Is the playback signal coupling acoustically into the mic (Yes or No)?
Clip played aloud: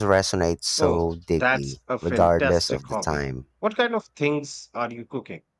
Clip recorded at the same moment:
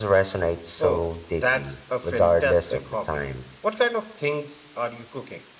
Yes